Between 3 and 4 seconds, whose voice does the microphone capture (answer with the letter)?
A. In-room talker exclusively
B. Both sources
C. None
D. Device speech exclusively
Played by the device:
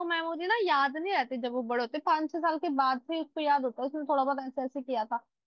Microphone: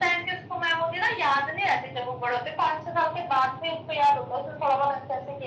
D